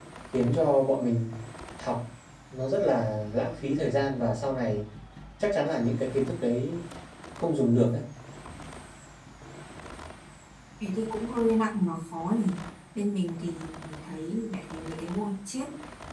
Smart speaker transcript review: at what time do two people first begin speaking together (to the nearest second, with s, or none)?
none